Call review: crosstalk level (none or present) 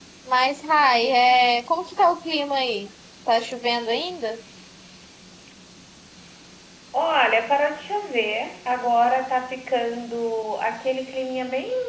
none